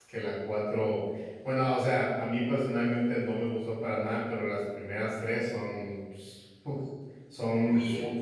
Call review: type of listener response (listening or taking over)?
taking over